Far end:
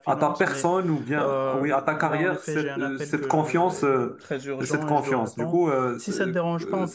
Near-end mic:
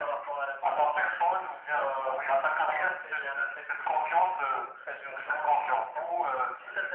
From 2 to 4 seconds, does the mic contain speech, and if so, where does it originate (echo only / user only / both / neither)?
echo only